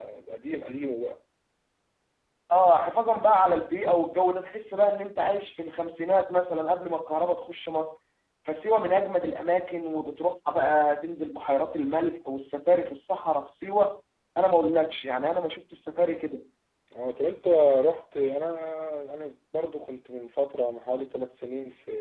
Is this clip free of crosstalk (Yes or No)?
Yes